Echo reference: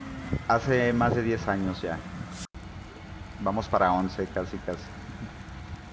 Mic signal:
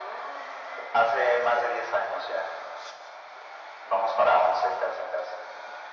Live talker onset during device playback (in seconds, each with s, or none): none